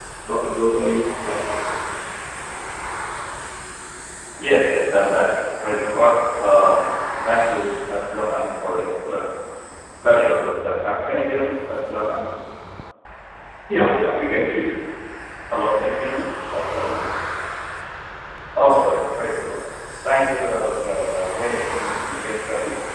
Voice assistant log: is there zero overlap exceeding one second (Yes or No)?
Yes